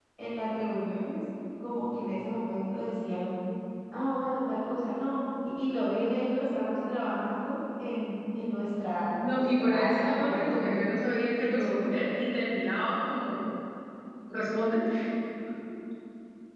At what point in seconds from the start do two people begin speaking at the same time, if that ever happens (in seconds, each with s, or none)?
9.2 s